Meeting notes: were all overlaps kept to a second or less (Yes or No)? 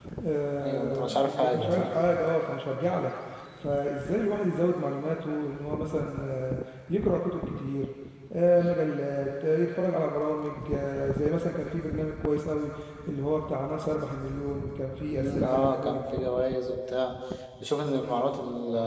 No